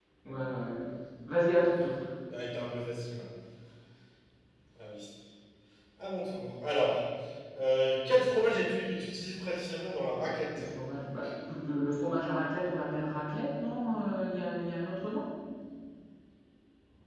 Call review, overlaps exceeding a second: none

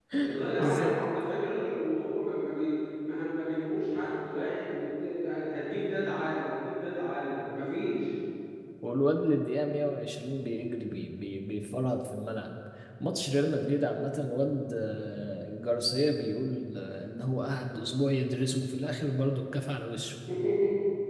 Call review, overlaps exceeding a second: none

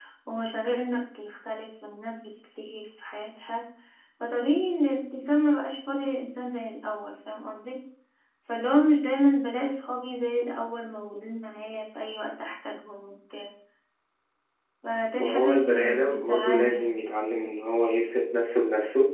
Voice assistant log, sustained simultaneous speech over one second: present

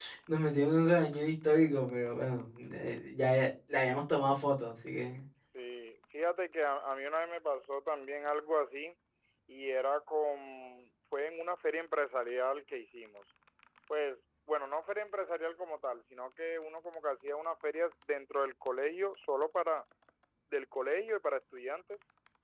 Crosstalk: none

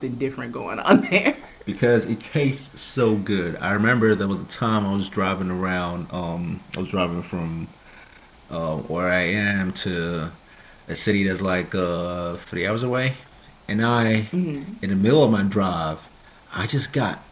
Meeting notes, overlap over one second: none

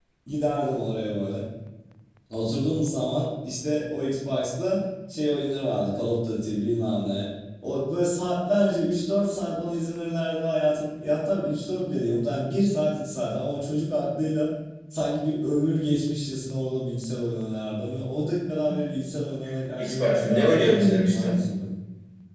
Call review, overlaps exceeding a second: present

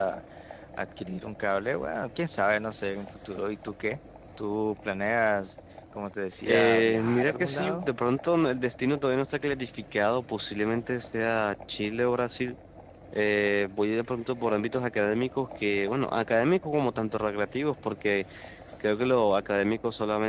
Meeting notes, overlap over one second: present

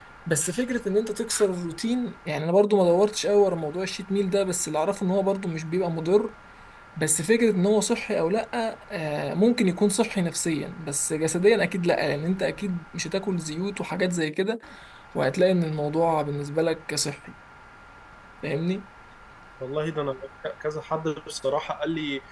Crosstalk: none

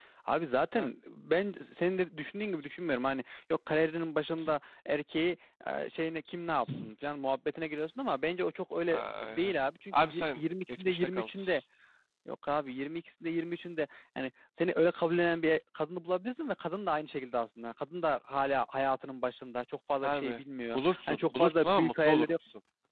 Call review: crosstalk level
present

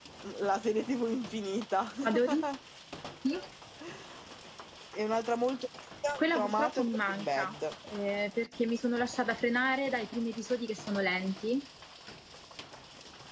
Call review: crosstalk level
present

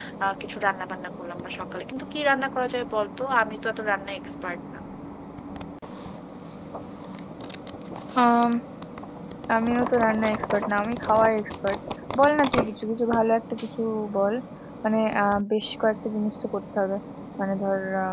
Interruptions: none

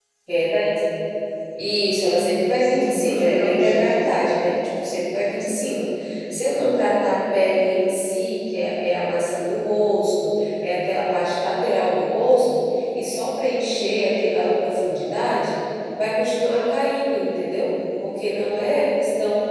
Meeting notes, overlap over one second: present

